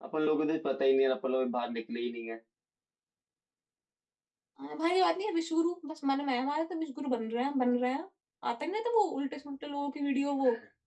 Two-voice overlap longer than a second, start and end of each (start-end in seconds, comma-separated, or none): none